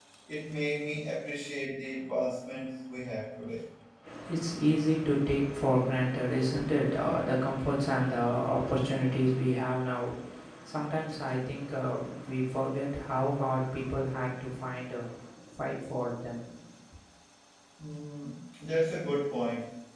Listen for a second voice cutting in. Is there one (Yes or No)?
No